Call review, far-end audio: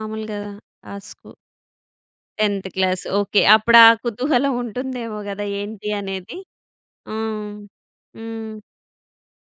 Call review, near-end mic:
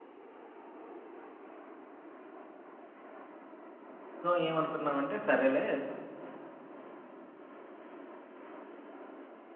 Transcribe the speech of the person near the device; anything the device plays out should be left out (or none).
సో, ఏమనుకున్నామంటే సరేలే